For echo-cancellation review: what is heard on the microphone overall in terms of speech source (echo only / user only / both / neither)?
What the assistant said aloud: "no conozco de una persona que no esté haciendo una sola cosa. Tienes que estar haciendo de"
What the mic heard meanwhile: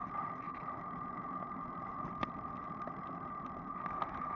neither